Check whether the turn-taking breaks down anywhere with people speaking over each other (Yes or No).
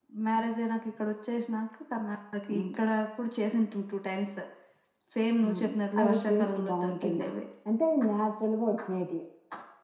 Yes